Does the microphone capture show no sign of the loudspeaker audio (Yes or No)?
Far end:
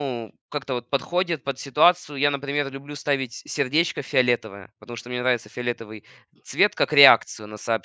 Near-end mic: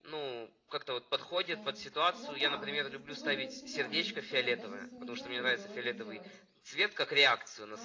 No